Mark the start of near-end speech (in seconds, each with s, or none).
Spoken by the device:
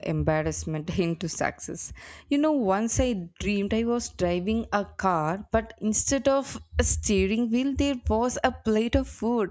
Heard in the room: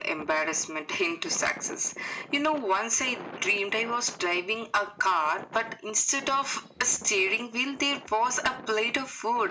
none